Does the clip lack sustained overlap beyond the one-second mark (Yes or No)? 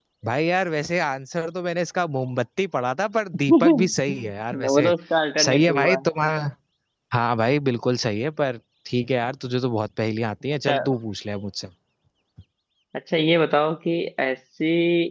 No